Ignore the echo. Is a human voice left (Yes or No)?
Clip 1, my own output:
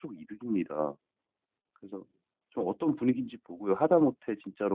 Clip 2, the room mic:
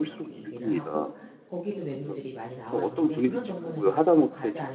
Yes